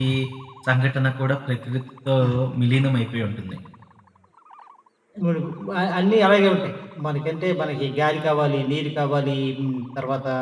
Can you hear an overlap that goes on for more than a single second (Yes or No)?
No